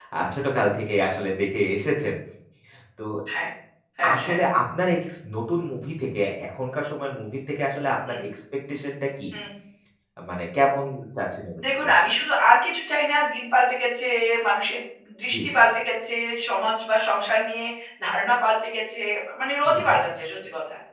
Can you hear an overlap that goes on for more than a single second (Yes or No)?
No